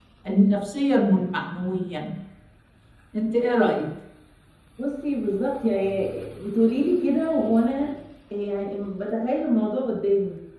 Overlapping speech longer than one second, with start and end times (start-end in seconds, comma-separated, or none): none